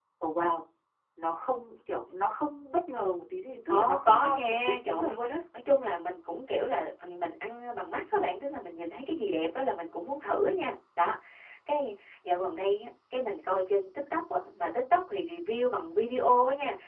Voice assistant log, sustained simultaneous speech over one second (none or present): present